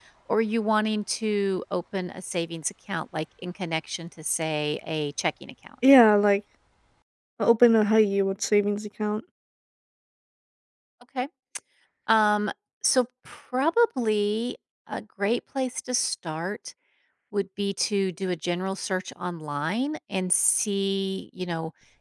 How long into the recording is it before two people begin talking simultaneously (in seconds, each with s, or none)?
none